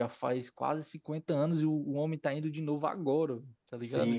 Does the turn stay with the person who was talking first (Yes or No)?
No